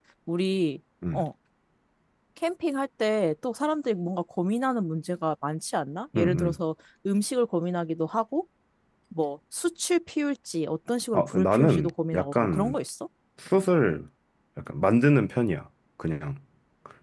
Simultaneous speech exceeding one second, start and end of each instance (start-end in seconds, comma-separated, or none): 11.1-12.8